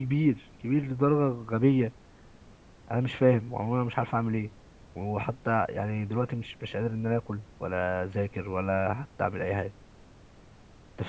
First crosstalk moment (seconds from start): none

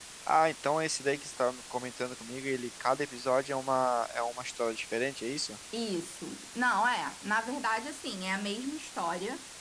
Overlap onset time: none

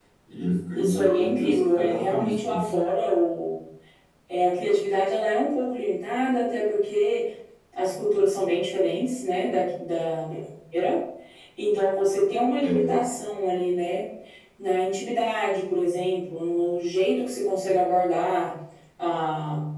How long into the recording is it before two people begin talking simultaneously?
1 s

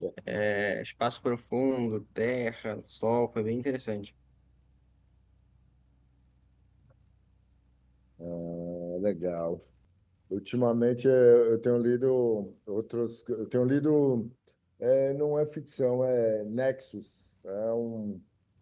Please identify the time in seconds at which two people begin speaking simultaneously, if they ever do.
none

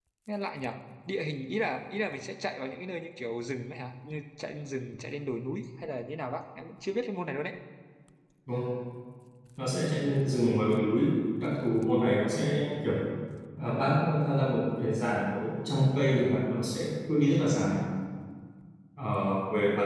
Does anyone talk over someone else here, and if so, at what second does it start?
none

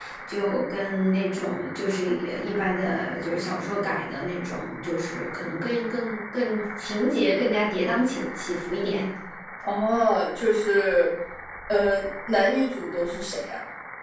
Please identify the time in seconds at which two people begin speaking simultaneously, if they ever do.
none

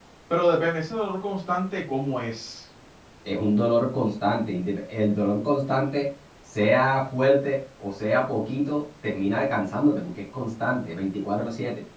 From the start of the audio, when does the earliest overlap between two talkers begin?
none

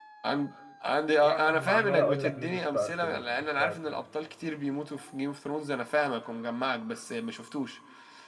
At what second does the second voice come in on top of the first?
1 s

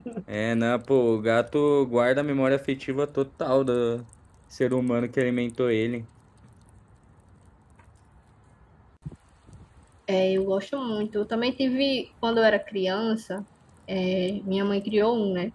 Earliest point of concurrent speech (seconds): none

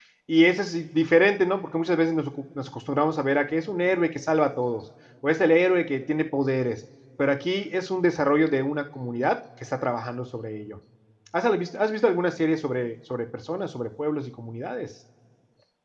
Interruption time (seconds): none

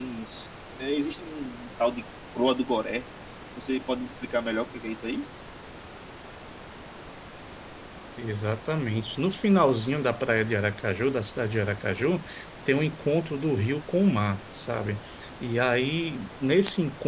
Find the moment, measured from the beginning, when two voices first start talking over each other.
none

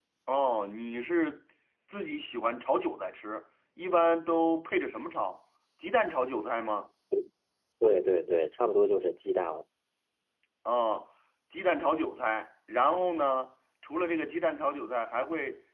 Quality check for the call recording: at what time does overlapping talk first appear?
none

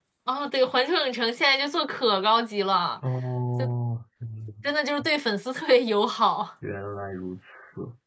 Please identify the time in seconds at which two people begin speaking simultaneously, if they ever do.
none

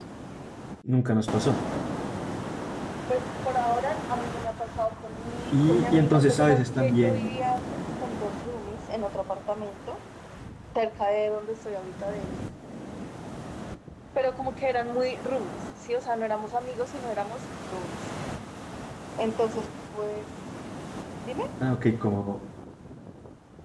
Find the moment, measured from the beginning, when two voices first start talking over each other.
6 s

